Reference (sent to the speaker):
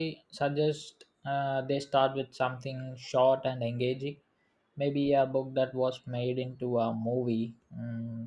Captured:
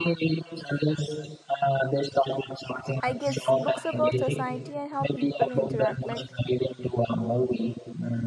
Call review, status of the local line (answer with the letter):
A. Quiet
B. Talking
B